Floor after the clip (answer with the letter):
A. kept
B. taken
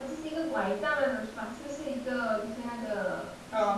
B